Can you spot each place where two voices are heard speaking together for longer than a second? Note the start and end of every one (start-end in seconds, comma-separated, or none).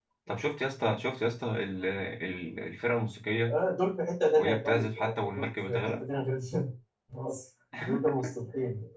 4.4-6.0